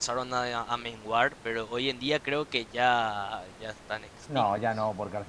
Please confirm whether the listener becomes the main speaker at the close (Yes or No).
Yes